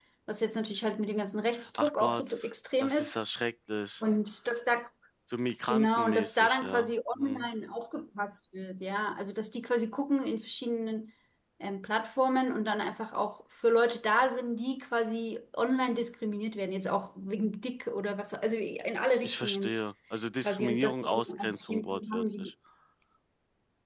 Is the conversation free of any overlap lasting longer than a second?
No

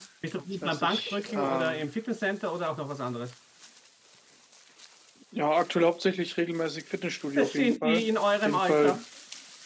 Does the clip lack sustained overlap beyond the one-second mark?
No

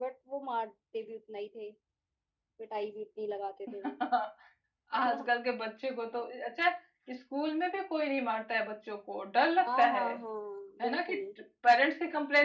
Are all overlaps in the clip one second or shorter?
Yes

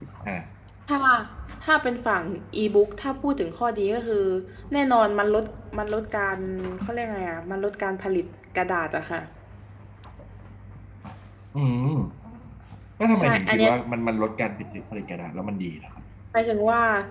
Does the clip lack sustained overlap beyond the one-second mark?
Yes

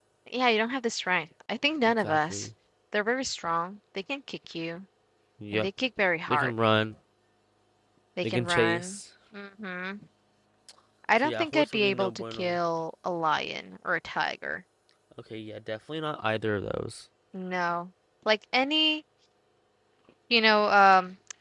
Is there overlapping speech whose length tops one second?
Yes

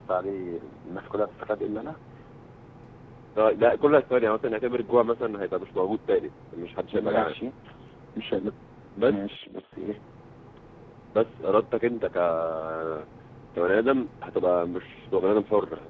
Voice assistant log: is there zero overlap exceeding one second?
Yes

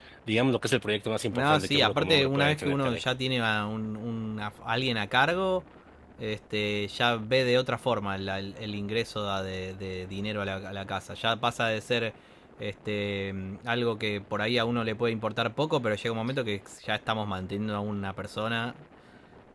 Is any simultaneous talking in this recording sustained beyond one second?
Yes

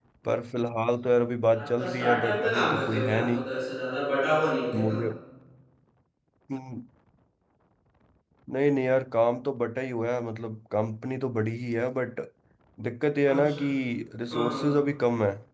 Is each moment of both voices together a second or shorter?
No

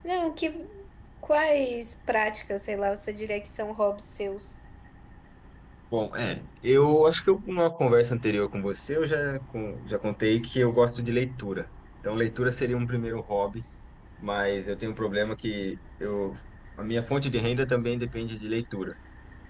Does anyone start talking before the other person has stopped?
No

